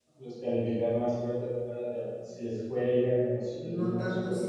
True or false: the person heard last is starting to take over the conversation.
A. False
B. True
B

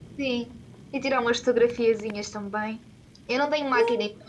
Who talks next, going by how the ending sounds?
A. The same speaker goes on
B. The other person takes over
A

